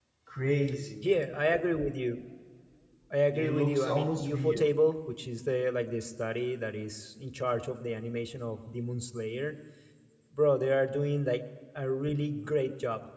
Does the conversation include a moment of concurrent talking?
Yes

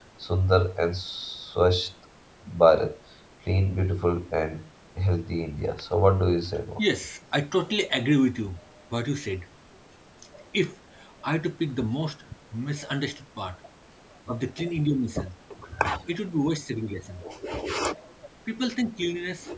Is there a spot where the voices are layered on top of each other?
No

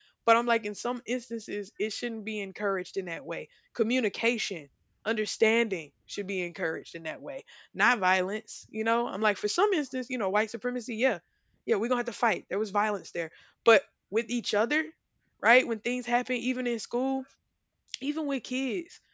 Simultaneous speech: No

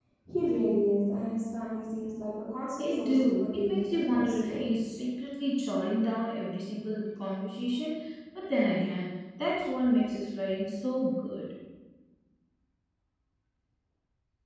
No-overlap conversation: No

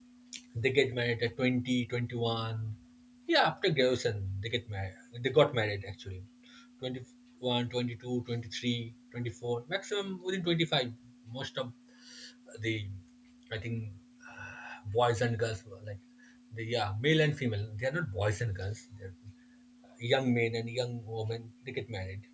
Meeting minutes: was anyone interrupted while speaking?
No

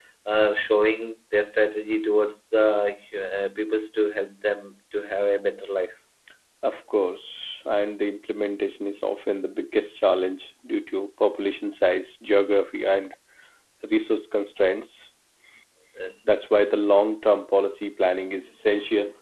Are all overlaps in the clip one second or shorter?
Yes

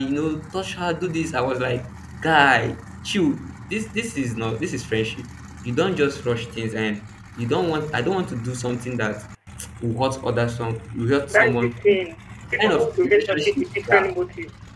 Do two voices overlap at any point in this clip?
Yes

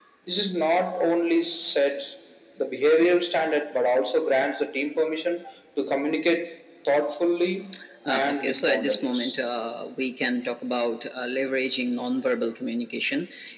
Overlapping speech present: Yes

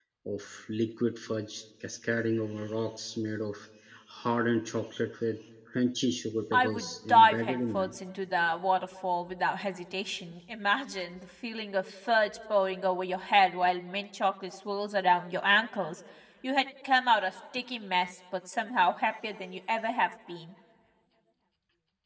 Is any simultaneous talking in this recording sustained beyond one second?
Yes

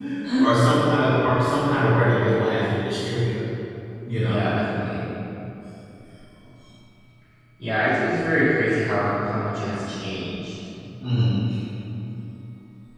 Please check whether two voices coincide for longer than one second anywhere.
No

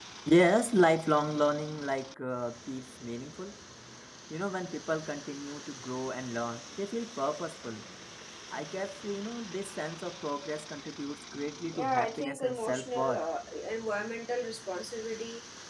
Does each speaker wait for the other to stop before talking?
No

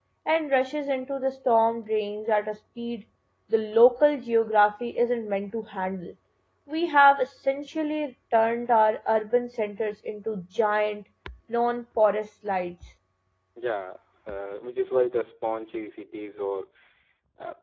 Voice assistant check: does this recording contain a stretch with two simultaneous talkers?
No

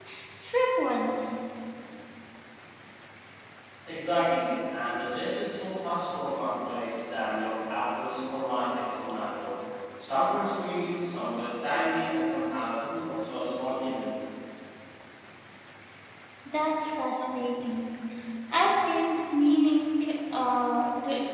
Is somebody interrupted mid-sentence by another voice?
No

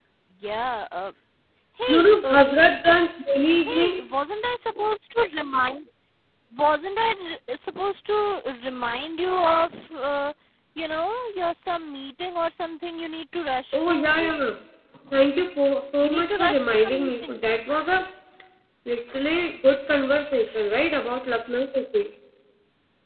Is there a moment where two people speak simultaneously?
Yes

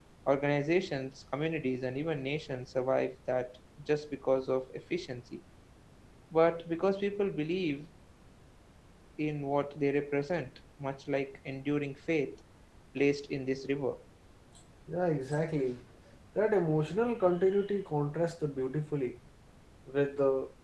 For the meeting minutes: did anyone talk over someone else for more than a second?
No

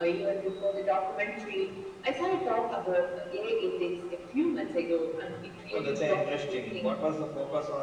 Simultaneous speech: Yes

